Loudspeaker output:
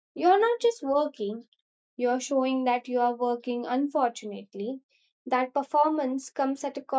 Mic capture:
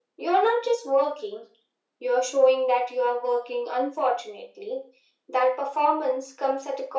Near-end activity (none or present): none